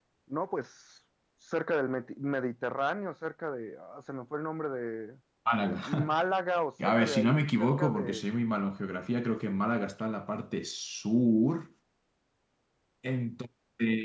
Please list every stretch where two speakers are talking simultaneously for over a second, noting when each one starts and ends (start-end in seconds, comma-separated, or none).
6.8-8.3